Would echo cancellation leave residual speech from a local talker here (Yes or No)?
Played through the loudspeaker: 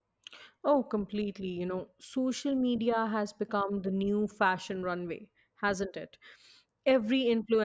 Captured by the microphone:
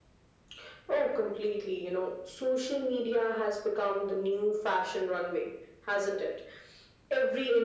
No